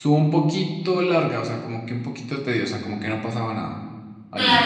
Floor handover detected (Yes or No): Yes